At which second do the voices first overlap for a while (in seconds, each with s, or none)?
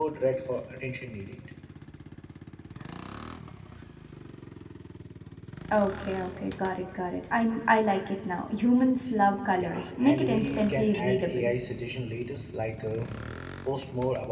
9.6 s